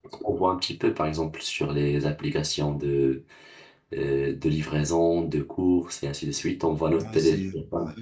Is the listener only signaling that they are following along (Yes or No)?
No